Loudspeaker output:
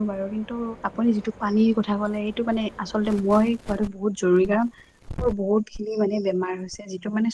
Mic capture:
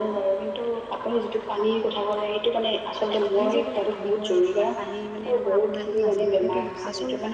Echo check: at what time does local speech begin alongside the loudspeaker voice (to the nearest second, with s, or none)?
3 s